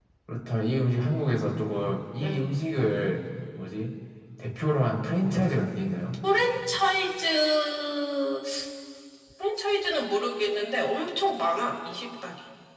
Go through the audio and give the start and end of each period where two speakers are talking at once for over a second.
none

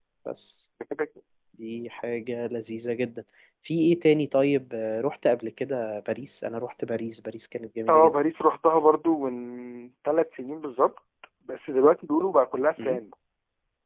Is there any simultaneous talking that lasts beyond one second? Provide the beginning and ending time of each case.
none

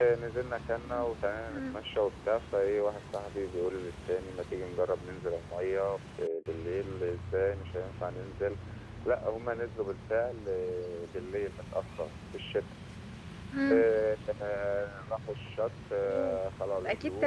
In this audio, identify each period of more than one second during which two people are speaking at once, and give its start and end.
none

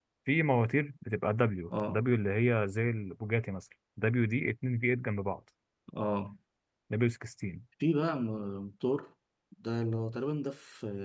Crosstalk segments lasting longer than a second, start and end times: none

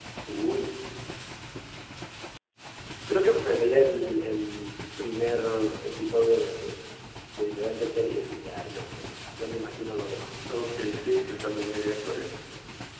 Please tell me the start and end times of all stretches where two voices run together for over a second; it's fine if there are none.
none

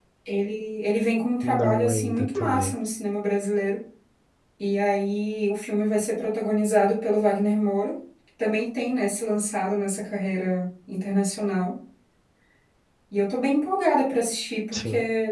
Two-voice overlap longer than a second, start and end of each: 1.4-2.7

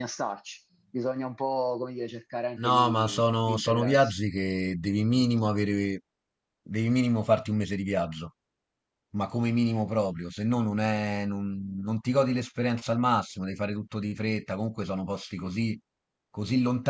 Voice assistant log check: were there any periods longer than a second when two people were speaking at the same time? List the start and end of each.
2.6-4.2

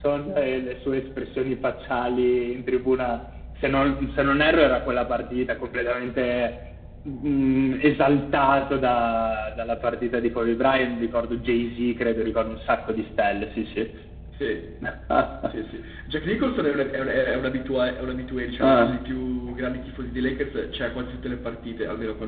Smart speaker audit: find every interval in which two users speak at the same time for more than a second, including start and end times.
none

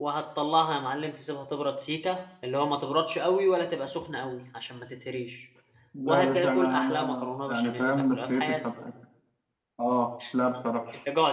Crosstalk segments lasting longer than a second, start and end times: 6.0-8.5

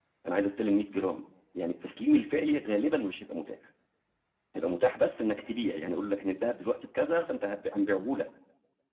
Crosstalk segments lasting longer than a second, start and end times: none

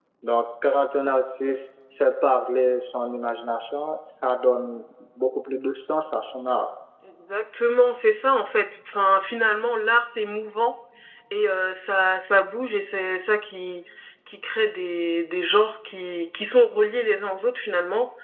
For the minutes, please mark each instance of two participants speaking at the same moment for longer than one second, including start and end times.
none

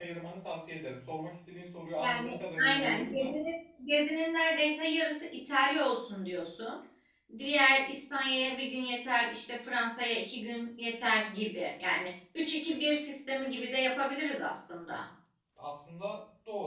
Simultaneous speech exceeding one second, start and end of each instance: 2.0-3.4

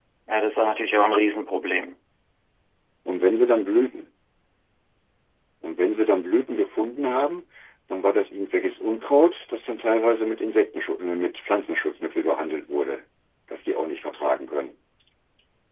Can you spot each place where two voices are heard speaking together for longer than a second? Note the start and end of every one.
none

